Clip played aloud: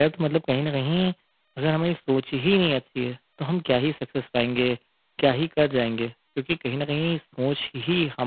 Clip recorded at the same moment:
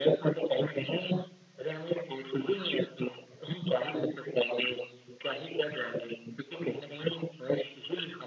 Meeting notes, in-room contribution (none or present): none